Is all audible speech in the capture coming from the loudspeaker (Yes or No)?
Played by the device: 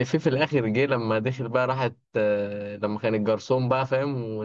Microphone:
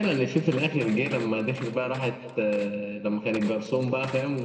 Yes